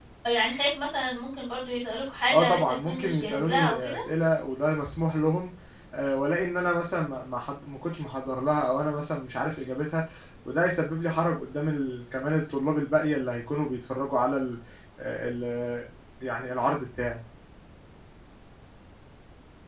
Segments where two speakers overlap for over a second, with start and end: 2.3-4.0

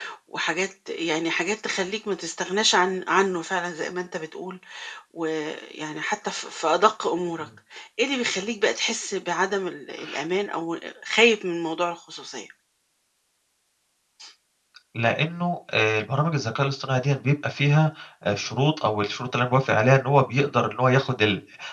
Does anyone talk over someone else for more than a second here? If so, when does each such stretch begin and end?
none

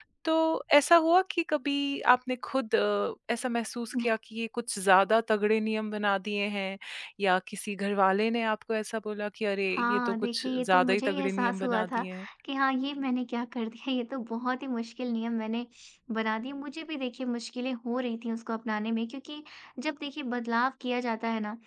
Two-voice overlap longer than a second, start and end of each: 9.7-12.0

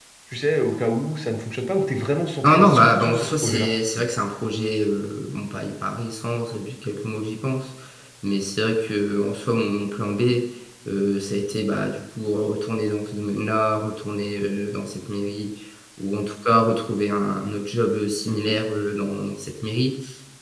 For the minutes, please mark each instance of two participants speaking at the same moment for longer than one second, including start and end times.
2.4-3.7

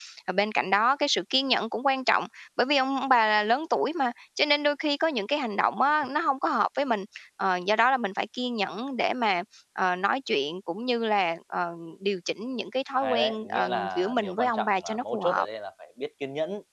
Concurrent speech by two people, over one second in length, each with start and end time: 13.0-15.4

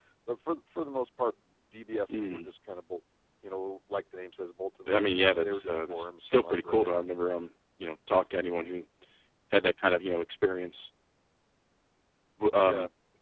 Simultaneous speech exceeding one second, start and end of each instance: 4.9-6.9

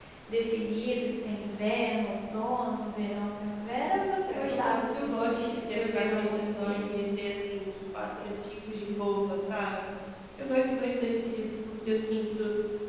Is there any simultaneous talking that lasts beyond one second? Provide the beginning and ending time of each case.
4.3-6.8

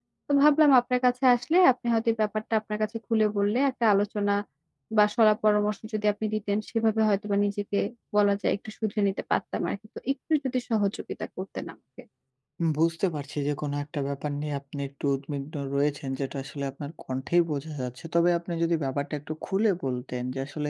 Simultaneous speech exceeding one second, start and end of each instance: none

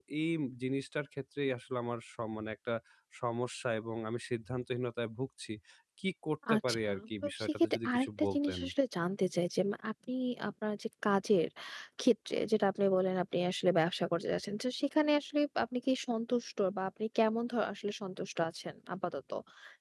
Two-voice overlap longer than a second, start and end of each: 6.5-8.6

